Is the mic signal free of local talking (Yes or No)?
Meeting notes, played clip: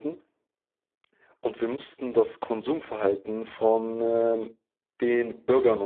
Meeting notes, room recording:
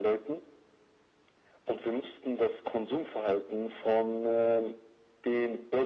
Yes